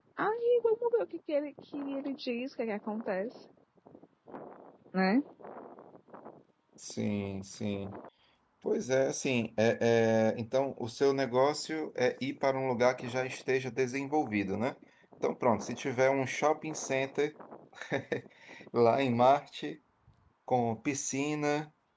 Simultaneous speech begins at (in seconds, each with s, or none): none